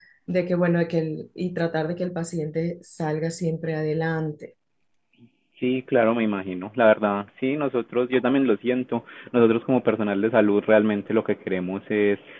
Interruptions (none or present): none